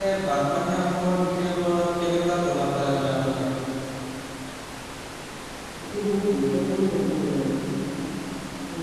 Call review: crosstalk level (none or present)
none